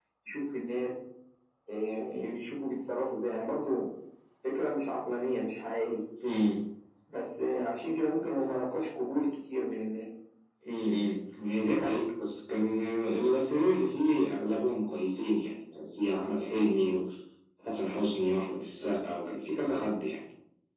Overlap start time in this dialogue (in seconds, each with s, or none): none